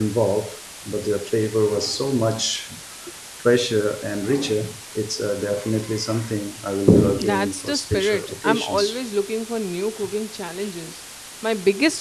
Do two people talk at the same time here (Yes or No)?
Yes